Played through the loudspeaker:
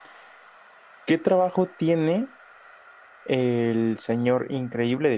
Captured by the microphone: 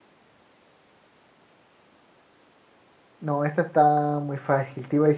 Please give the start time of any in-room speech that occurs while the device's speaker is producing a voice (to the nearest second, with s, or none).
3 s